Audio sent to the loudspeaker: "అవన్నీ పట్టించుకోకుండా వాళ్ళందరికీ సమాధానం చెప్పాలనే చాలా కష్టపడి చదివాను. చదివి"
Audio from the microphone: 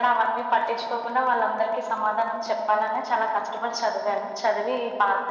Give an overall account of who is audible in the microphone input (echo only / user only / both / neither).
echo only